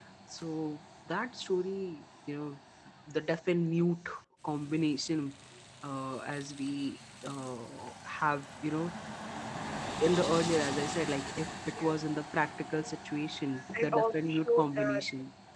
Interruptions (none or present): present